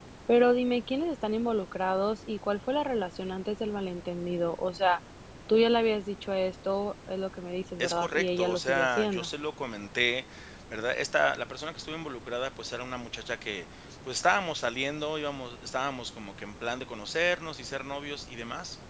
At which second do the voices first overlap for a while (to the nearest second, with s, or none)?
8 s